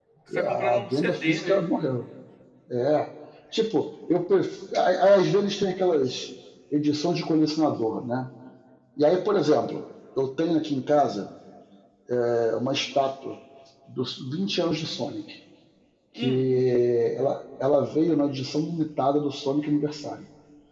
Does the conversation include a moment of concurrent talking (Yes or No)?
Yes